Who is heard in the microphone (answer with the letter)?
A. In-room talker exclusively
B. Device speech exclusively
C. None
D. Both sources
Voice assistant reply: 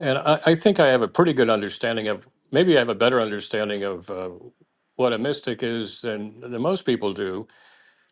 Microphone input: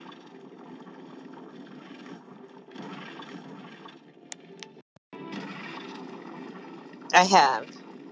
A